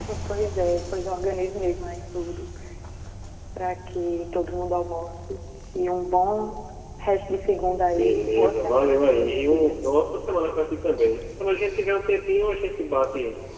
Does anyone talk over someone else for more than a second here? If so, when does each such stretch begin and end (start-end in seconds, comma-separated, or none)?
7.9-9.8